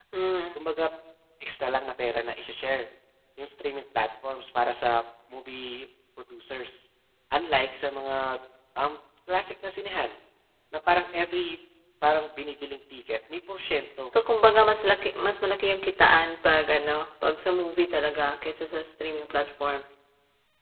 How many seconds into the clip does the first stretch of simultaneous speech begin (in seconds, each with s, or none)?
none